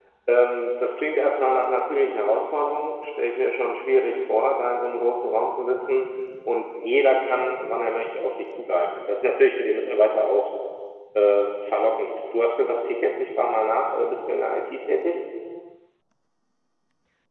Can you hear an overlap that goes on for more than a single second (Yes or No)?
No